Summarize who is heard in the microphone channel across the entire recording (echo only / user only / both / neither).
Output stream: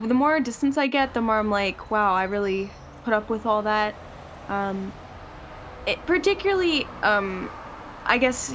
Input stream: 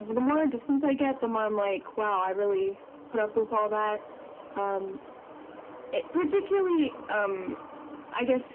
echo only